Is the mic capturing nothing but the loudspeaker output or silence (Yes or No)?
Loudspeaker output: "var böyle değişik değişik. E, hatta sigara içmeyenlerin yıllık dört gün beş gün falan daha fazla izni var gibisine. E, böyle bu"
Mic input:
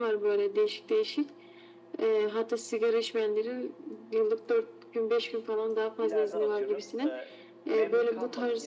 No